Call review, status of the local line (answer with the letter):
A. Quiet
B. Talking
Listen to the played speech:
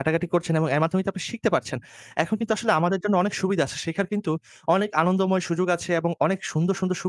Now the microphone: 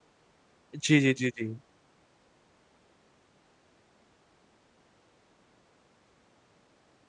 B